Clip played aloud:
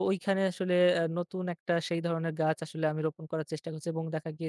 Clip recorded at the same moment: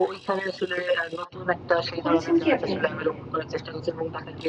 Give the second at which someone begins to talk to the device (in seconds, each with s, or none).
2.0 s